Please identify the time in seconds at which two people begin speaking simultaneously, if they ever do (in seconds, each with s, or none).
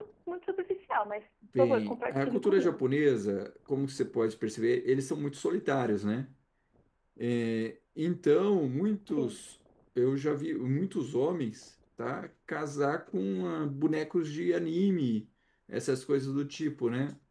1.6 s